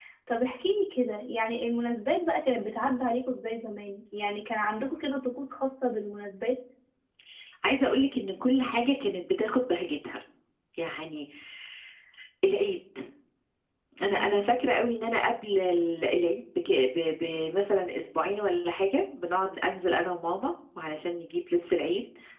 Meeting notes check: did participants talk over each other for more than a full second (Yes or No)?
No